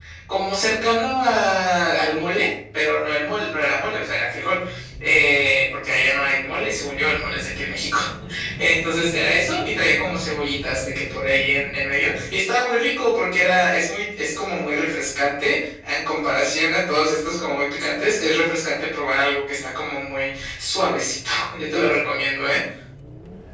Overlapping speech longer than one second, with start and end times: none

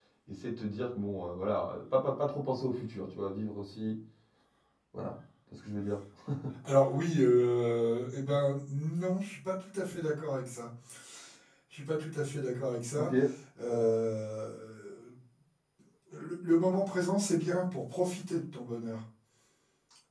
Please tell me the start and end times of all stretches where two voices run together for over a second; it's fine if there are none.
none

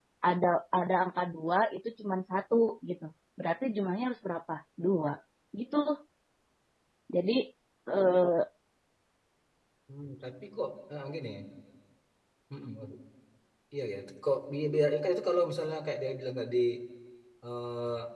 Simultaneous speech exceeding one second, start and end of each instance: none

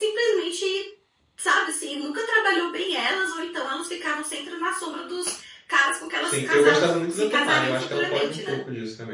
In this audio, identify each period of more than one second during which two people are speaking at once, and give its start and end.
6.2-8.6

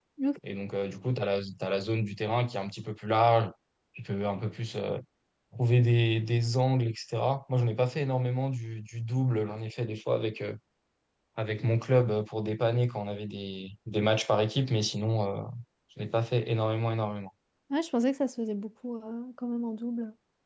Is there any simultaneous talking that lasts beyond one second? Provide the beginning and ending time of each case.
none

